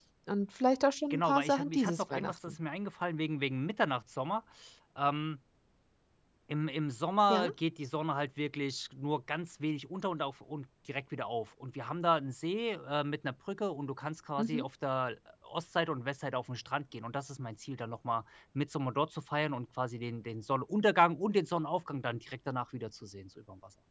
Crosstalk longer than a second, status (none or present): present